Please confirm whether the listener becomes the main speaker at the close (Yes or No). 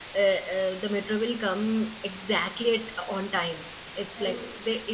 No